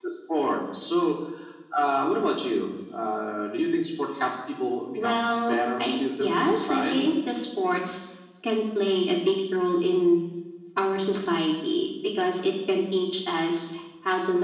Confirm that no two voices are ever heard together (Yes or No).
No